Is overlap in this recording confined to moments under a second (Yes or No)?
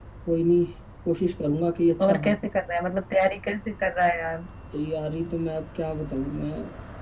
Yes